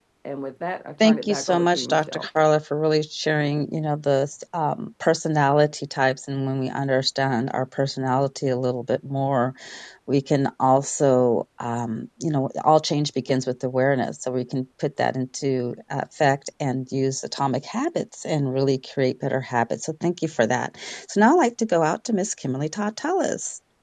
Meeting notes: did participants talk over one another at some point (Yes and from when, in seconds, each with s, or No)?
Yes, from 1.0 s